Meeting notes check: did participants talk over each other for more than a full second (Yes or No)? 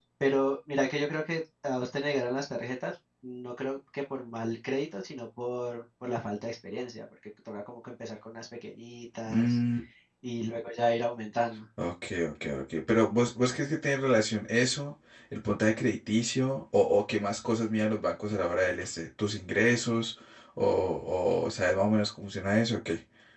No